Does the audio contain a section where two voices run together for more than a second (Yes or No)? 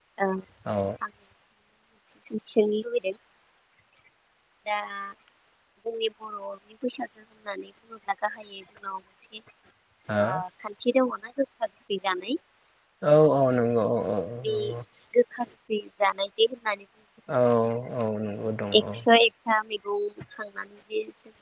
No